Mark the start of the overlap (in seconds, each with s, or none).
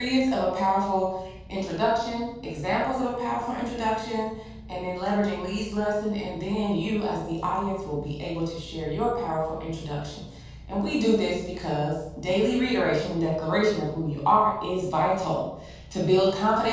none